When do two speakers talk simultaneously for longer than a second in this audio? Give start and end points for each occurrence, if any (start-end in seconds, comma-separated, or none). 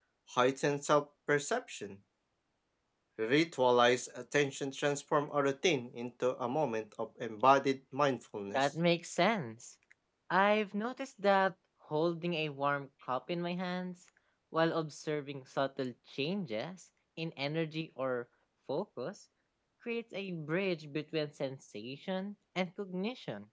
none